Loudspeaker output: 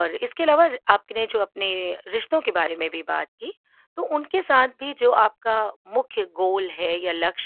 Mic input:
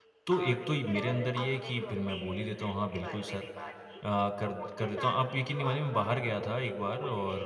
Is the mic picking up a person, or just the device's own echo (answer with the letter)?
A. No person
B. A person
B